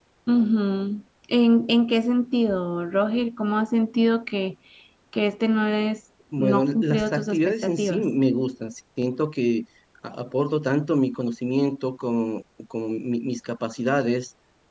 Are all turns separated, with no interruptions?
No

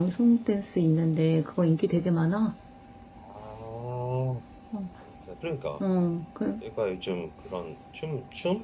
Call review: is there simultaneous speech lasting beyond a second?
No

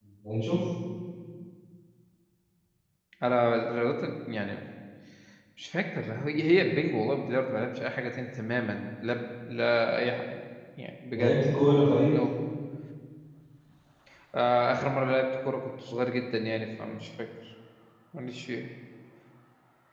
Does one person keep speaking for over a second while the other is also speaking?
No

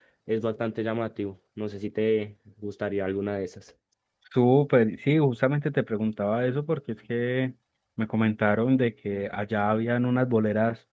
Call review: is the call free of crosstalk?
Yes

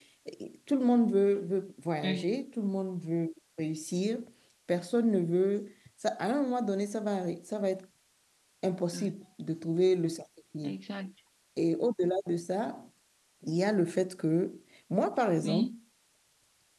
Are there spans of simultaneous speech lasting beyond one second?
No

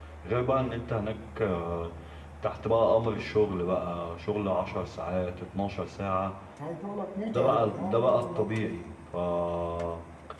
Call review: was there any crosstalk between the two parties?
Yes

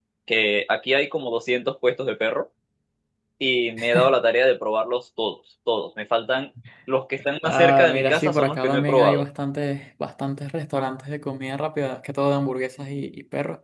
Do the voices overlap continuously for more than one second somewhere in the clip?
Yes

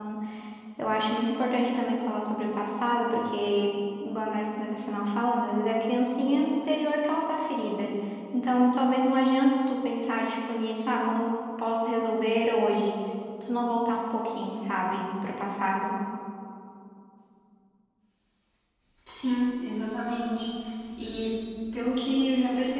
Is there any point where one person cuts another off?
No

